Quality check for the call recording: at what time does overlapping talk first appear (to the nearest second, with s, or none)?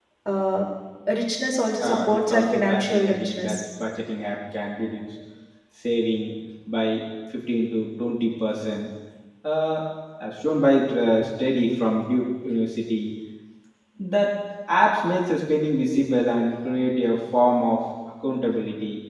2 s